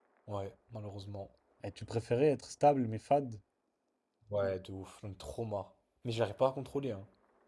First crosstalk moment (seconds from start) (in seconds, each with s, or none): none